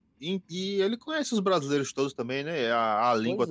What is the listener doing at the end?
listening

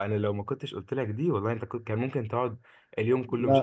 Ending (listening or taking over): taking over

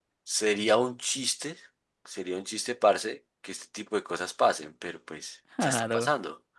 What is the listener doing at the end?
listening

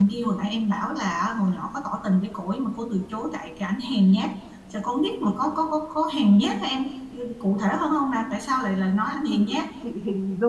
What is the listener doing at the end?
taking over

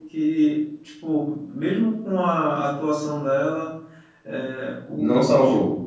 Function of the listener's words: listening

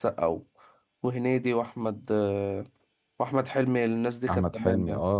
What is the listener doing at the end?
taking over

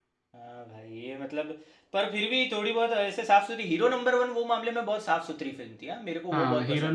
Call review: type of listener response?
taking over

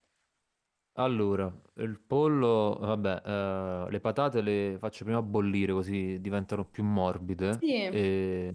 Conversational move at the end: listening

